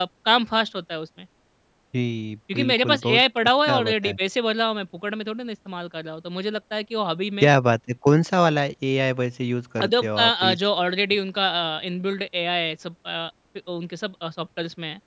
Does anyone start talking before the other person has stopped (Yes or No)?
Yes